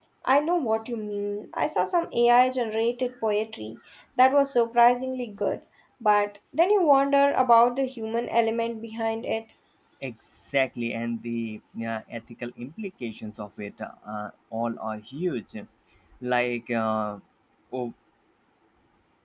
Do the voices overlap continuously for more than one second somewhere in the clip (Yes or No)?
No